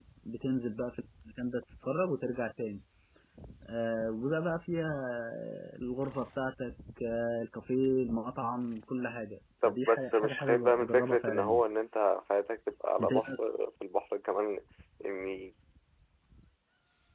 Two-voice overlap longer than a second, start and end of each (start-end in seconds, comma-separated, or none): 9.7-11.6